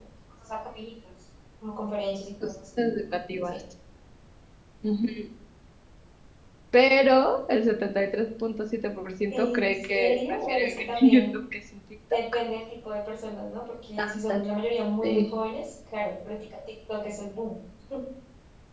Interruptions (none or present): present